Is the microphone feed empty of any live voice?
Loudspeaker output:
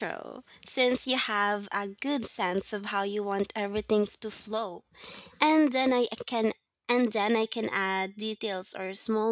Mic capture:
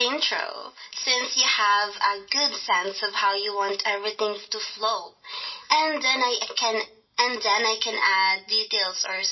Yes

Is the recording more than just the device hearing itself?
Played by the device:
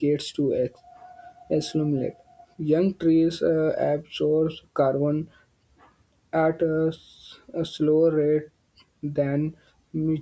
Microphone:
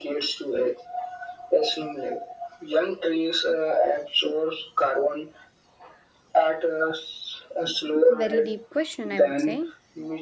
Yes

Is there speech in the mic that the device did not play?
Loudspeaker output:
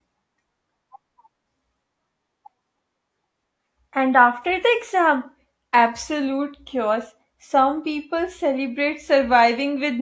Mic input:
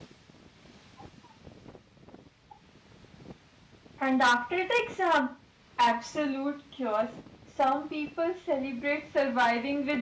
No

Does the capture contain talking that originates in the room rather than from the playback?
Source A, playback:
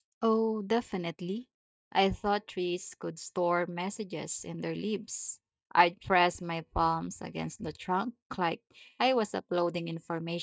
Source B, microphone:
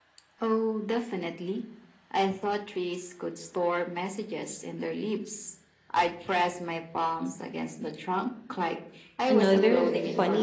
Yes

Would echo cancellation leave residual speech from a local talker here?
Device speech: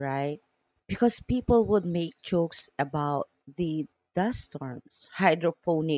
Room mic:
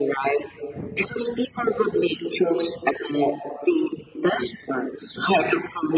No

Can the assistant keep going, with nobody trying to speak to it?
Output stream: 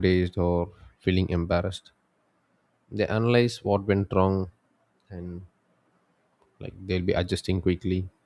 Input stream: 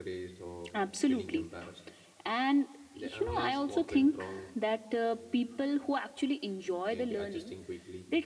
No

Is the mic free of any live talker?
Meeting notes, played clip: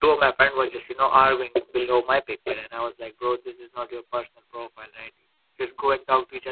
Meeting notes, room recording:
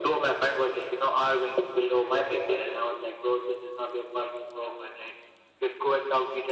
Yes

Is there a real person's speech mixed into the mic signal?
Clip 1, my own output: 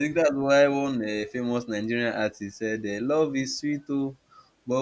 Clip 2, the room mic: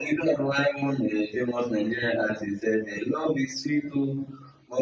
No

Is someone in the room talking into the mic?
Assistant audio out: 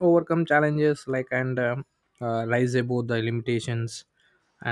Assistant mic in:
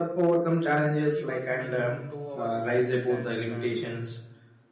Yes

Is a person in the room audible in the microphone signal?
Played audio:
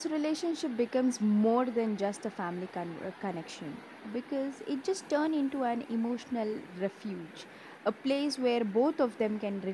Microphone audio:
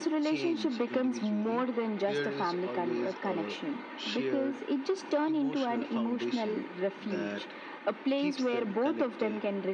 Yes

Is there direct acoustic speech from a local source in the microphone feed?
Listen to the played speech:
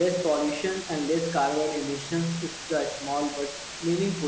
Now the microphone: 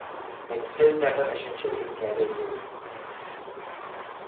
Yes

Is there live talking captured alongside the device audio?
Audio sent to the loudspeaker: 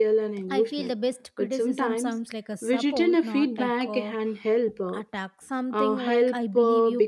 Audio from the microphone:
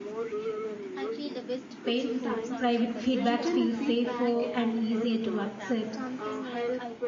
Yes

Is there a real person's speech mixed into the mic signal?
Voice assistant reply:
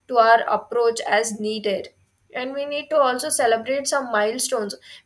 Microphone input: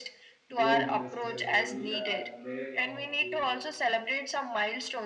Yes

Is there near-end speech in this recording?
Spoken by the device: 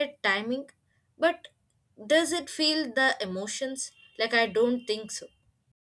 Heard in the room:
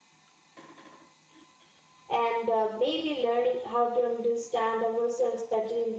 Yes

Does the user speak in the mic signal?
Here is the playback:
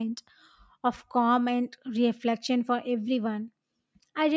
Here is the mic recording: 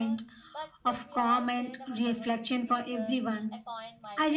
Yes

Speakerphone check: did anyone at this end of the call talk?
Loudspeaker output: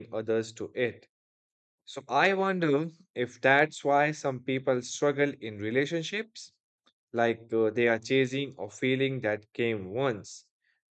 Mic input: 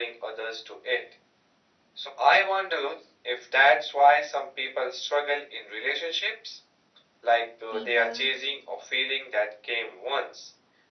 Yes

